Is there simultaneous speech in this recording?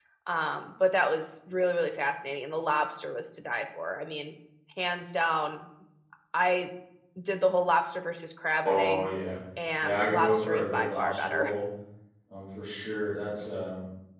Yes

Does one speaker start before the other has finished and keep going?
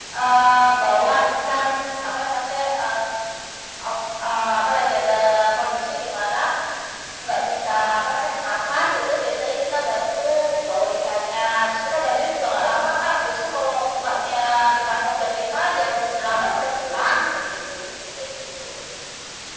No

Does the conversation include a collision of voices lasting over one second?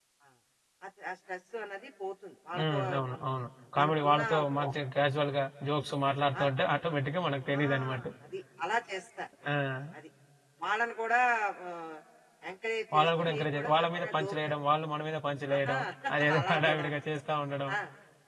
Yes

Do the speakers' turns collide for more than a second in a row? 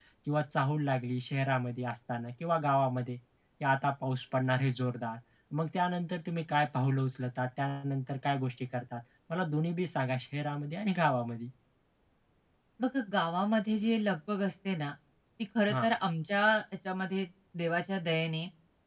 No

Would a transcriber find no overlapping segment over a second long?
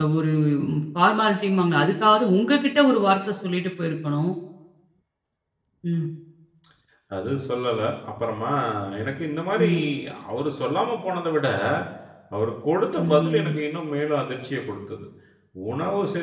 Yes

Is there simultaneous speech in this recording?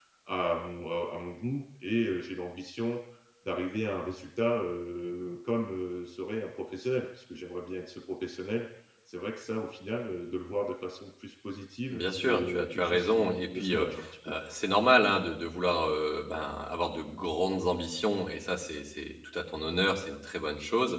Yes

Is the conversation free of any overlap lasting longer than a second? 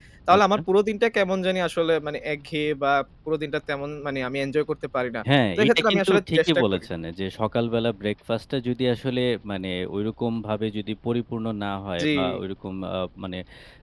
No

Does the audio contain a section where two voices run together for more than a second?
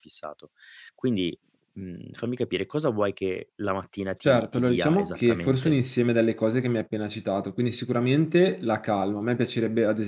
Yes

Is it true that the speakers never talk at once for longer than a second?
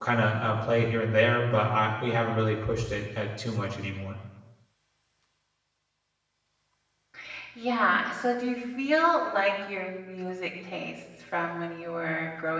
Yes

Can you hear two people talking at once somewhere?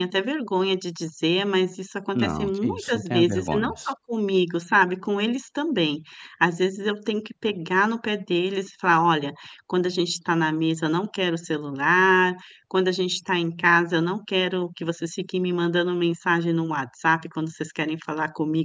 Yes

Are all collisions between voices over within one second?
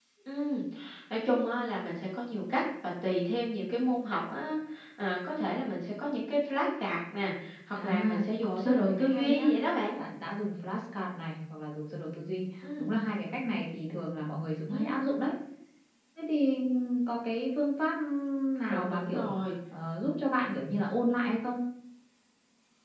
No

